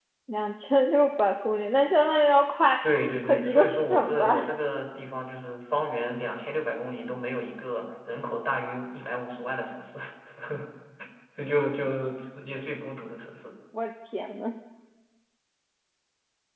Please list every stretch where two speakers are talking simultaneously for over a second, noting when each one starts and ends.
3.2-4.5

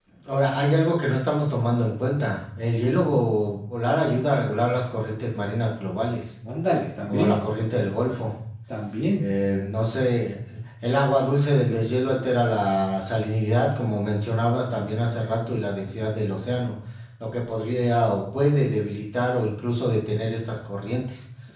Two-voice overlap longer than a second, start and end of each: none

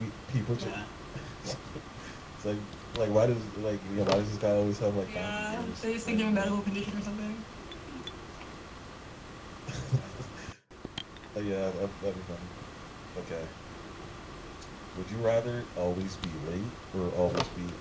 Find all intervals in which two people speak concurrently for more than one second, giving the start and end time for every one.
5.0-6.6

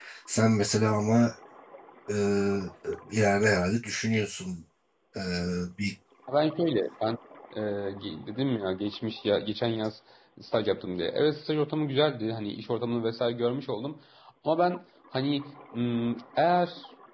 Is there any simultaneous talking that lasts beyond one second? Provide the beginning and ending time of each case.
none

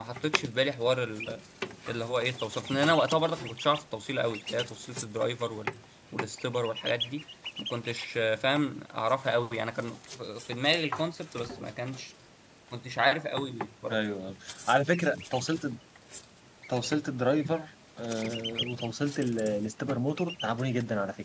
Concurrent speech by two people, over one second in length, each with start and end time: none

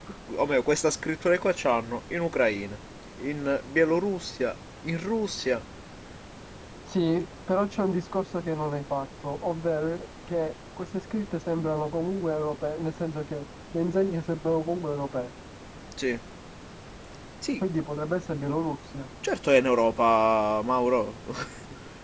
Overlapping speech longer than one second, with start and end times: none

